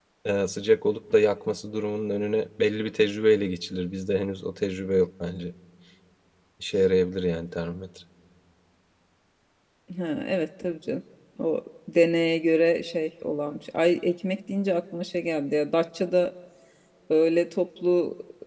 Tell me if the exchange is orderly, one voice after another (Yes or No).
Yes